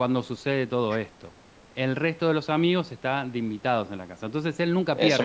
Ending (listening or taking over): taking over